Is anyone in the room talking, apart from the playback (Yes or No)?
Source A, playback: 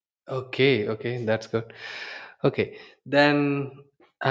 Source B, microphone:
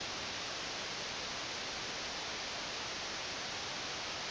No